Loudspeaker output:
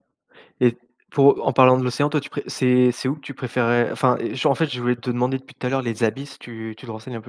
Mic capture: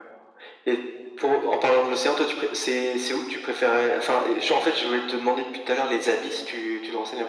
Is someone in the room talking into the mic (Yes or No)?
No